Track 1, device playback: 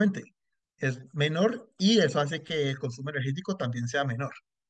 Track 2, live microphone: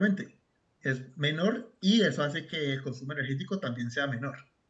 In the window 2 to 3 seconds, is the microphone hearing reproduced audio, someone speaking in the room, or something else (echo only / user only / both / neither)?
echo only